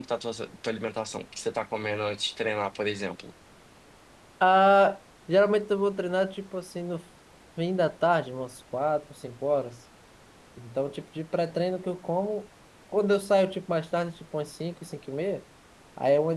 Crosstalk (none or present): none